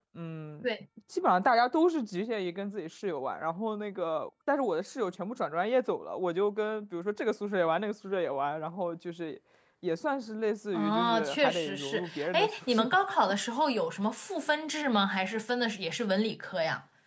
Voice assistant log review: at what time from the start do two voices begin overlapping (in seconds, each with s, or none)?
10.7 s